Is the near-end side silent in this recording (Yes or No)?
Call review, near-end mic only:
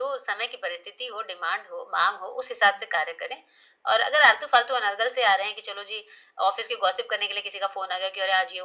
Yes